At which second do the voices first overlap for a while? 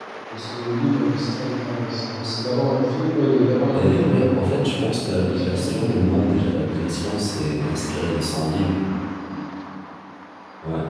4 s

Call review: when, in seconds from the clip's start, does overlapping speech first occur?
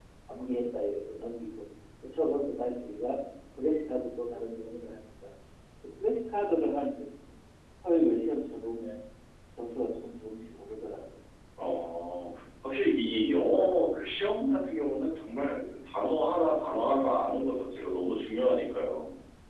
none

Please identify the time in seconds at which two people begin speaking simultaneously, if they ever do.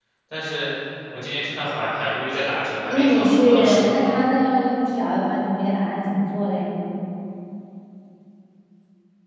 3 s

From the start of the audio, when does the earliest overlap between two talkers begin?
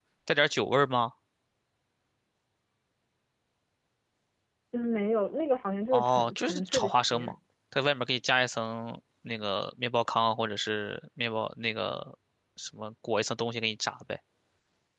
6 s

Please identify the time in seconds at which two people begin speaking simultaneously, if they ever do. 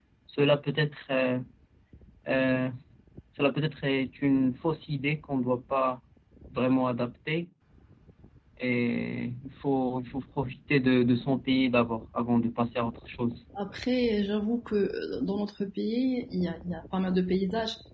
none

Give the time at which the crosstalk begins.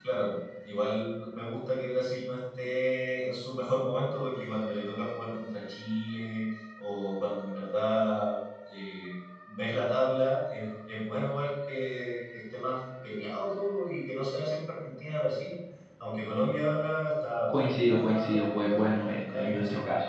18 s

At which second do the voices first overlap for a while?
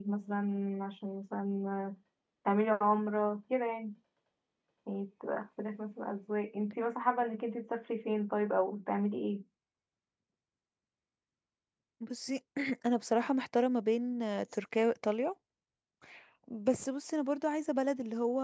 none

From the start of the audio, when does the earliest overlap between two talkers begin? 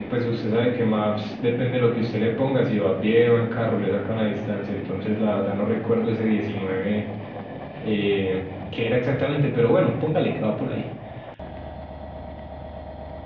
none

